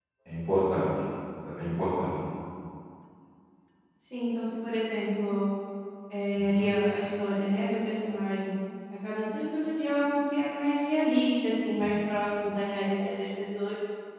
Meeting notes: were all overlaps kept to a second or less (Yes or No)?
Yes